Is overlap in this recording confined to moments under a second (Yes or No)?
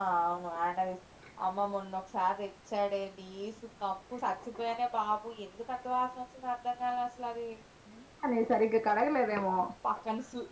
Yes